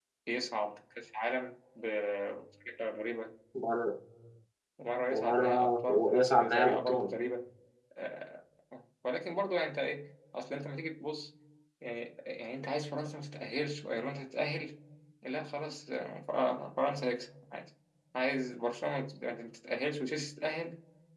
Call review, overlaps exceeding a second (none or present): present